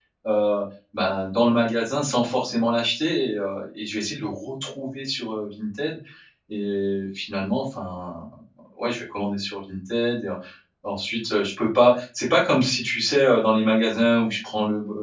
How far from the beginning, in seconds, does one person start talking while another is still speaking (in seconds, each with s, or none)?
none